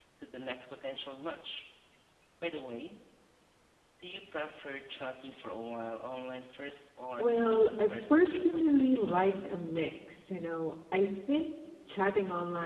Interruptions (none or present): present